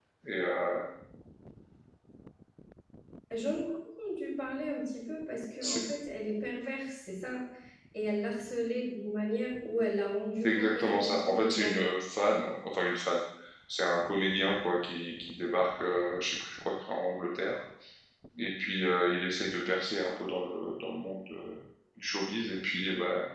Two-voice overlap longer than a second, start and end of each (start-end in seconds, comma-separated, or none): 10.4-11.8